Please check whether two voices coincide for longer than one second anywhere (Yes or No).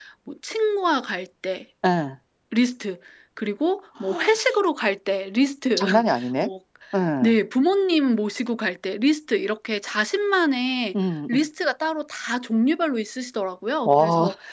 No